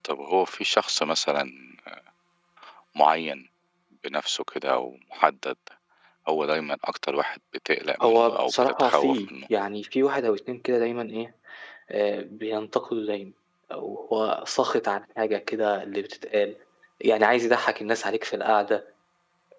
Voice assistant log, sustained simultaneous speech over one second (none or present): present